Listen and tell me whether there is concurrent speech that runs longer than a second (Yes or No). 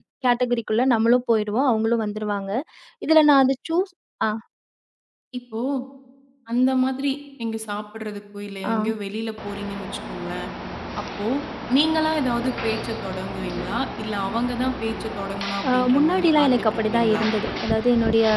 Yes